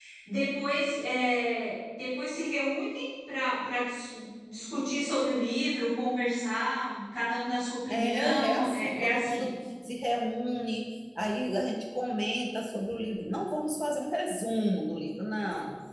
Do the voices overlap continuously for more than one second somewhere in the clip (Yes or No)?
Yes